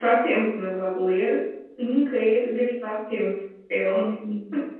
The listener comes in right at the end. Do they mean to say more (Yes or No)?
Yes